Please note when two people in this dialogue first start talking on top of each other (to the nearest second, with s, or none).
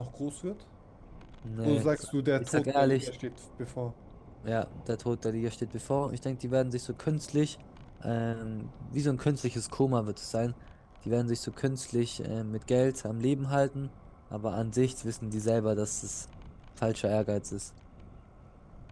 2 s